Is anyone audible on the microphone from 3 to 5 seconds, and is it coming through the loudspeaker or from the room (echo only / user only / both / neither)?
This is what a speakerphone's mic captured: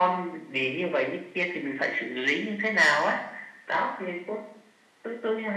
echo only